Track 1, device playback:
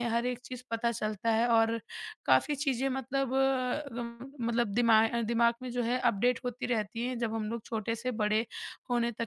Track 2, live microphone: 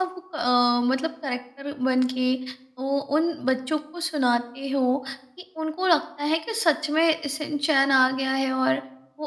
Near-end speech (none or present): present